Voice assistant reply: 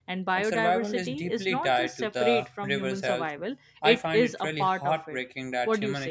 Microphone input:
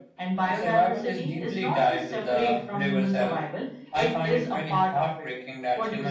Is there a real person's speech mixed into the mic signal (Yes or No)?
No